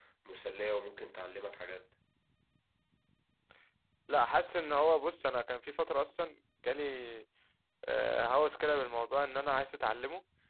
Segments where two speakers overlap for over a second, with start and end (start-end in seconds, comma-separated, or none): none